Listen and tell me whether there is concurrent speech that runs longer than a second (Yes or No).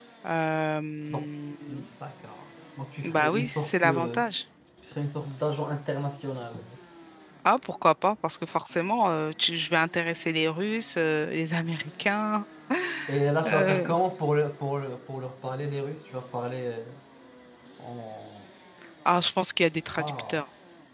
Yes